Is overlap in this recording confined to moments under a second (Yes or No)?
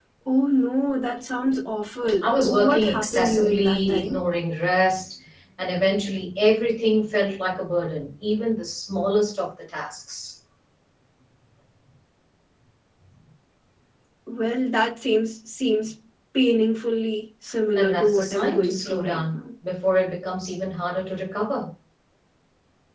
No